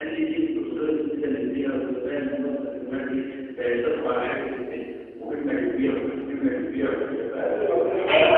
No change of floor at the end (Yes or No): No